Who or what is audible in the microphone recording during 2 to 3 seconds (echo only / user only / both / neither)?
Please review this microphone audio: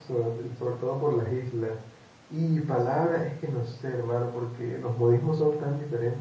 user only